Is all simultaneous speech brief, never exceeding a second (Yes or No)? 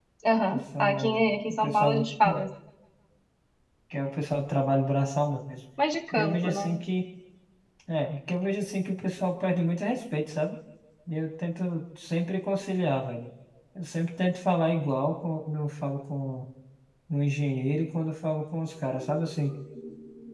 No